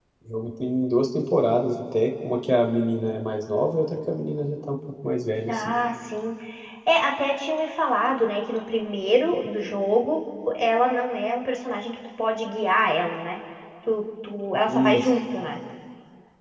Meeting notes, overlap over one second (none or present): none